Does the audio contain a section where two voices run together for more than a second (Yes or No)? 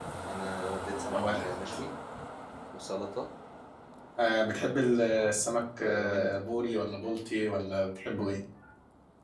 No